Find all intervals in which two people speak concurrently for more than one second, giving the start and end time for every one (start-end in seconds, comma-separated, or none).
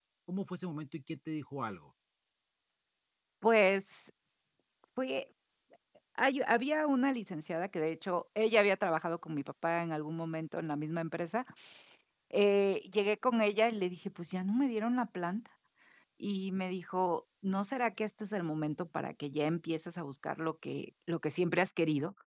none